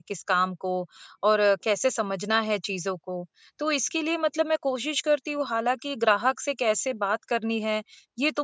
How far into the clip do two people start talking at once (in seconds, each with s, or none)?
none